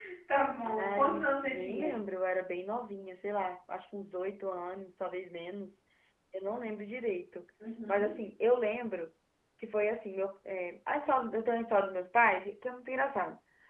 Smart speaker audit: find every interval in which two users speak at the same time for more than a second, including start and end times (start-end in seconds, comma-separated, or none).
0.6-2.0